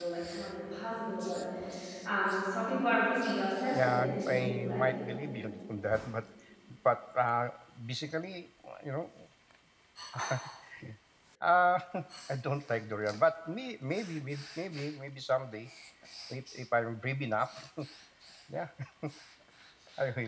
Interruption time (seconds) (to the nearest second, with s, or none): 4 s